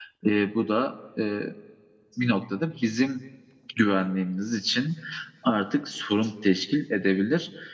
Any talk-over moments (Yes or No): No